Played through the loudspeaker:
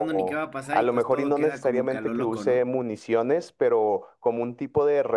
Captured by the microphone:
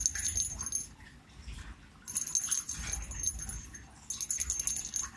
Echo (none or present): none